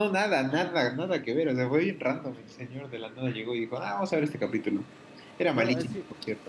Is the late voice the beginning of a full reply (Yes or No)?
Yes